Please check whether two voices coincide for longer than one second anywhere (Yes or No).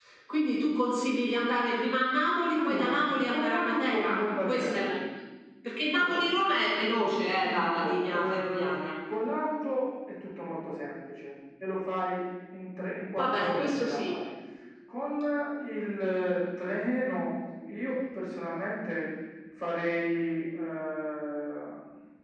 Yes